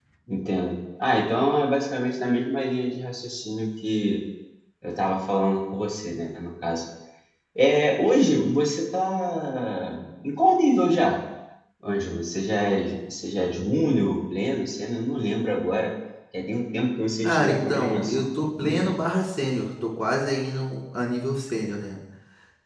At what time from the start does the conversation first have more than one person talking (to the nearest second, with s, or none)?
17 s